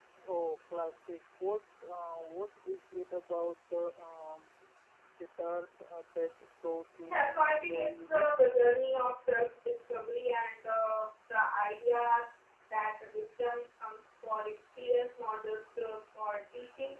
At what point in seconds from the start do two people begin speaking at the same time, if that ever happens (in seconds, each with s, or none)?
7.0 s